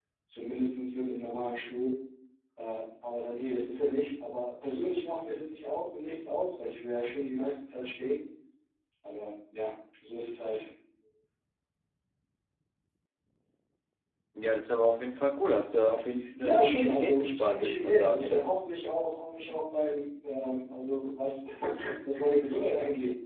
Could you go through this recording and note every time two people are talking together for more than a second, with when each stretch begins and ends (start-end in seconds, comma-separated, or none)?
16.4-18.5